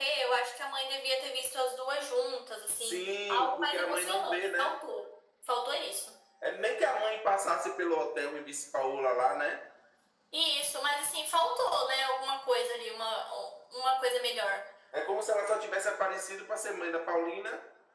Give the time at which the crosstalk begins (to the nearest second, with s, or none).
3 s